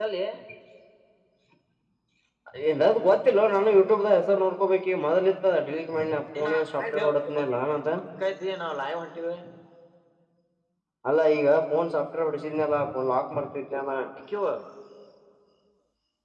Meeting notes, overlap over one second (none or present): none